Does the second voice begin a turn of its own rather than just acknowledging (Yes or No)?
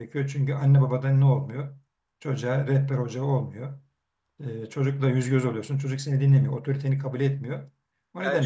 Yes